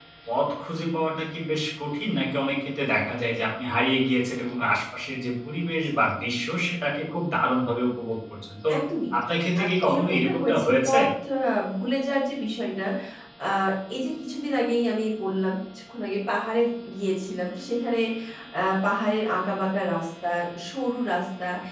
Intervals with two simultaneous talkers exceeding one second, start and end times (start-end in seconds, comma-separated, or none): 9.6-11.0